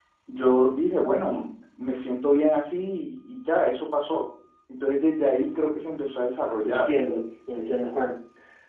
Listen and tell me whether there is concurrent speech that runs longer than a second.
No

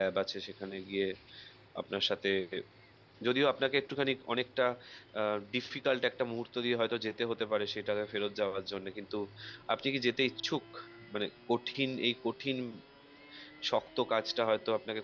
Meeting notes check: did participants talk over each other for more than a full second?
No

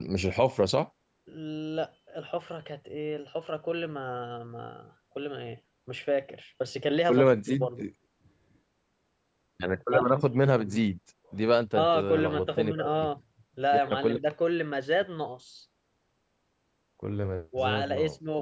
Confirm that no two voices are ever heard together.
No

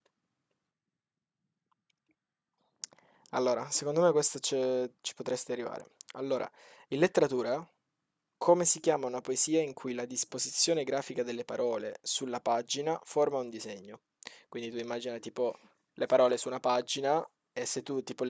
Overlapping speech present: No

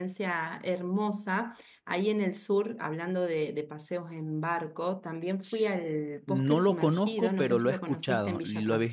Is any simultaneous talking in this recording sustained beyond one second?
Yes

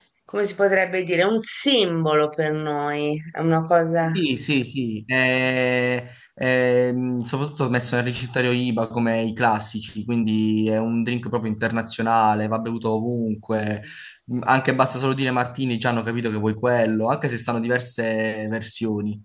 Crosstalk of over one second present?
No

